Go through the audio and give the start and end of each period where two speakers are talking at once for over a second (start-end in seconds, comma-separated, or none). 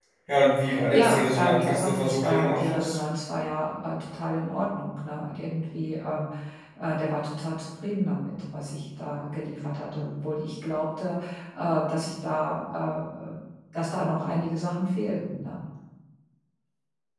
0.9-3.0